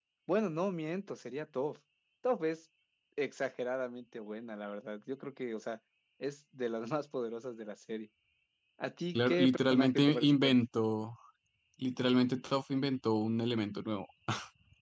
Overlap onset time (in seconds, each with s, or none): 9.1 s